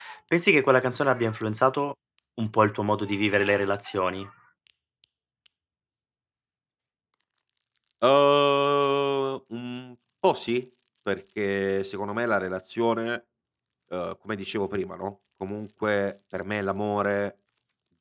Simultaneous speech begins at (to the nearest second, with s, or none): none